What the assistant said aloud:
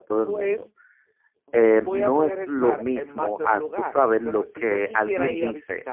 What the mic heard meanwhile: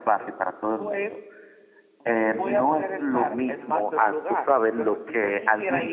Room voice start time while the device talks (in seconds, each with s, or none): none